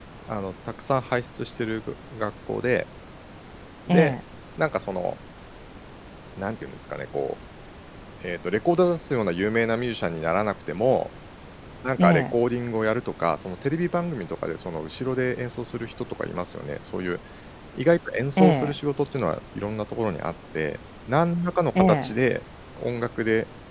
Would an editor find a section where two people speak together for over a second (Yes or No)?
No